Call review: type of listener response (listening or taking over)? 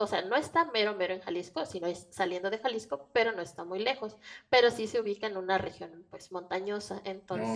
listening